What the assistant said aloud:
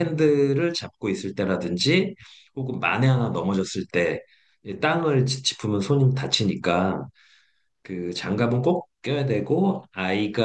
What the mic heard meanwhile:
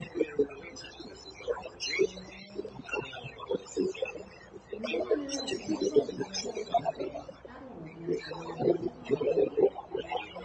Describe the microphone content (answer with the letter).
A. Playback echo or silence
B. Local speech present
B